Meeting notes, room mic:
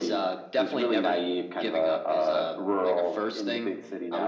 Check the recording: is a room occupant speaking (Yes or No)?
No